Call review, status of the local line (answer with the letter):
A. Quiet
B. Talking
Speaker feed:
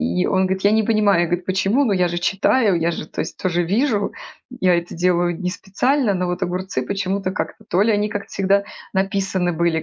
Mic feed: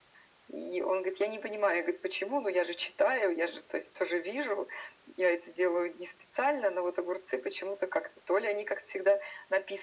A